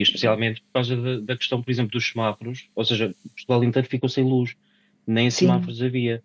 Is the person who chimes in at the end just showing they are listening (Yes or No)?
Yes